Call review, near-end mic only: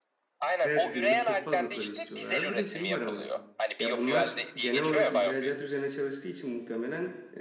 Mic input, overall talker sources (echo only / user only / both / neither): both